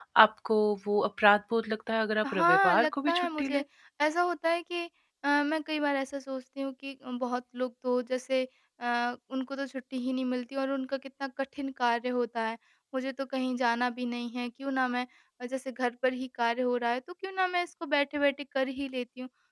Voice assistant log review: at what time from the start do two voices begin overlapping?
2.2 s

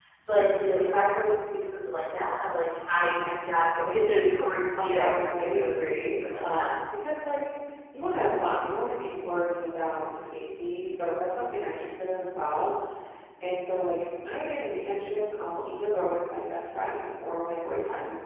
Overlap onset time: 4.8 s

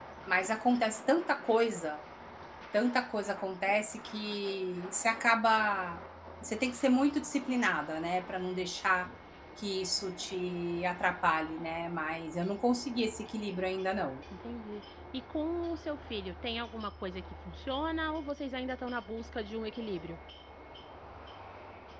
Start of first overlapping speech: none

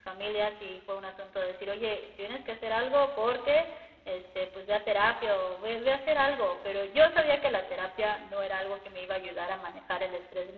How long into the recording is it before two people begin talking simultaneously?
none

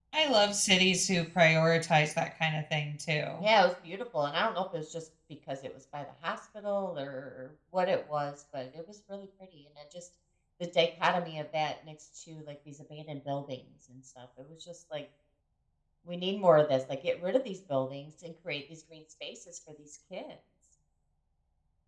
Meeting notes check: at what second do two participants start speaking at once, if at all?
none

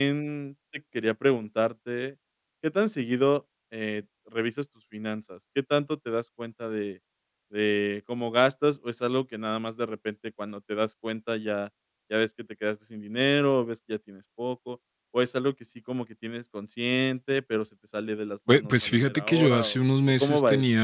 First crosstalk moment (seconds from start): 18.5 s

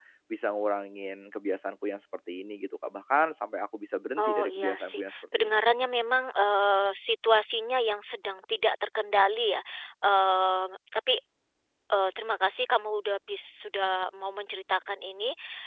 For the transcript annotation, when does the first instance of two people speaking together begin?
4.2 s

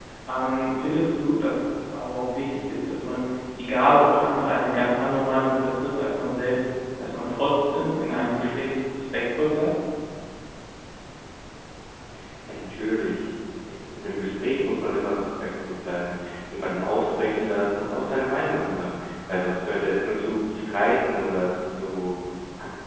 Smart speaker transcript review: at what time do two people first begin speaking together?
none

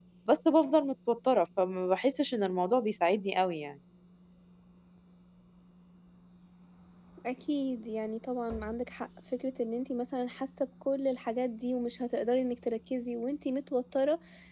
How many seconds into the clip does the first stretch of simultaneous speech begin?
none

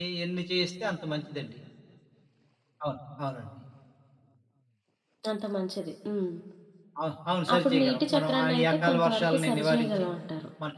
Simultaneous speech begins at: 7.5 s

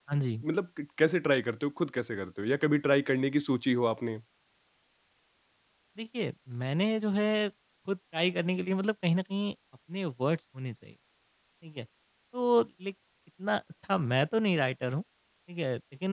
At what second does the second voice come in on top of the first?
none

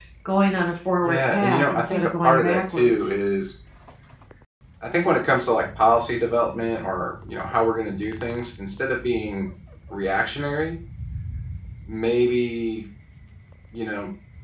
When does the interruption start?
1.0 s

